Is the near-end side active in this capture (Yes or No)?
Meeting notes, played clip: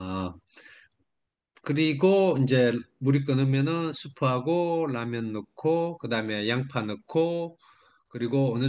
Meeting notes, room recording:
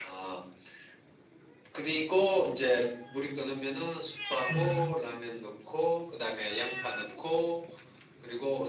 Yes